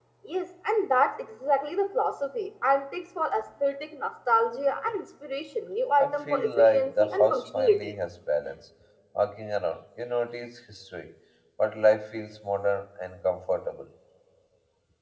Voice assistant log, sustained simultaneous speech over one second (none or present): present